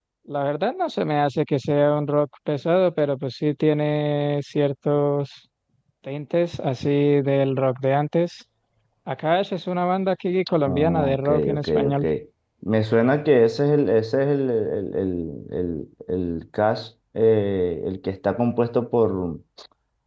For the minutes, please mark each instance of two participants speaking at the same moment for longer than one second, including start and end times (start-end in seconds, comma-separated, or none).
10.7-12.0